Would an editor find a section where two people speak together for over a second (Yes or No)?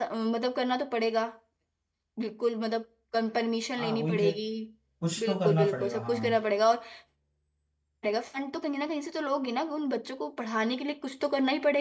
Yes